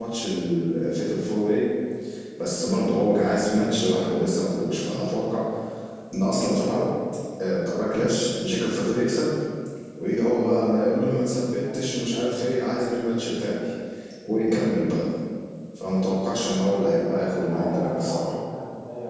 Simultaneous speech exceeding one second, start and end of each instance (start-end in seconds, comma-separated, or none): 16.5-18.4